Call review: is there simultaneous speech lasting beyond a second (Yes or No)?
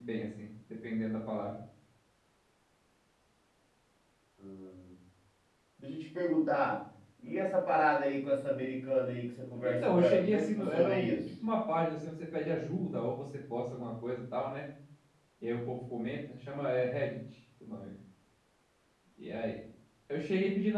Yes